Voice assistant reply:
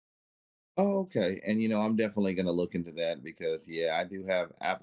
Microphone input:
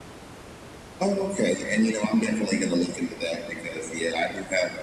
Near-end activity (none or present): none